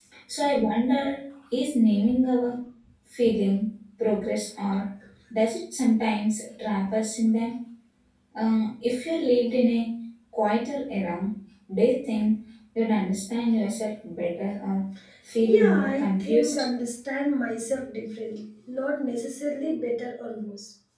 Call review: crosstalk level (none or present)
present